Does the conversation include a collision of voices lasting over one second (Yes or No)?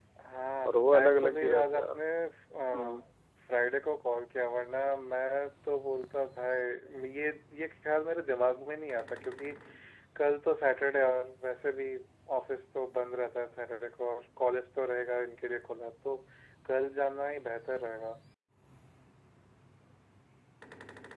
Yes